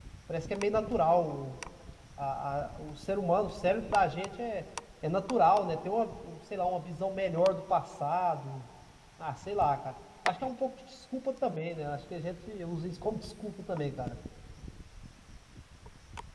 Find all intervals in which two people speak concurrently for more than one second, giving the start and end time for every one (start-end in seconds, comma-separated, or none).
none